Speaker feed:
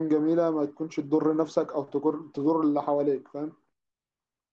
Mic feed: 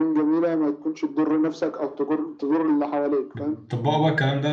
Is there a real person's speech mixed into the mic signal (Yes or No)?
Yes